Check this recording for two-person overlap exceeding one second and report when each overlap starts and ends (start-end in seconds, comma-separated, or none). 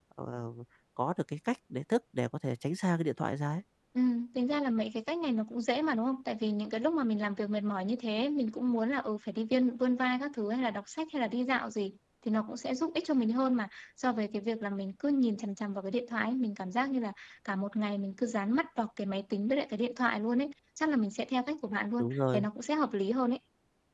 none